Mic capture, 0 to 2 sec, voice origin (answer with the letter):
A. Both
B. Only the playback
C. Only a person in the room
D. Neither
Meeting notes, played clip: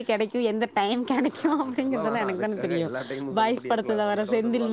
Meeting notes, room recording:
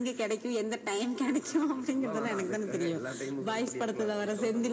B